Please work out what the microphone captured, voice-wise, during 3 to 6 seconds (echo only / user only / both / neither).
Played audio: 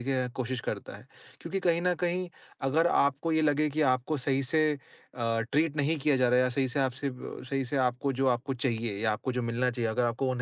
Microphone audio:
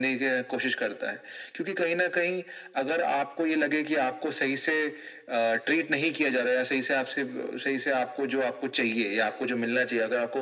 echo only